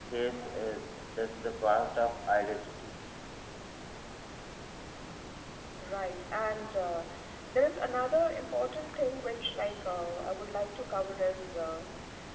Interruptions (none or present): none